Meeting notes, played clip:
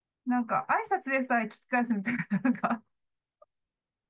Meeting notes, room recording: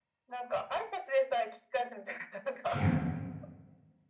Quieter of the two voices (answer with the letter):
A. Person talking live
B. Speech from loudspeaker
B